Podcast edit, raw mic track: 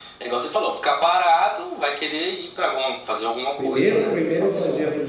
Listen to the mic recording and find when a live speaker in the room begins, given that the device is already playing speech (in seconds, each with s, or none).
3.6 s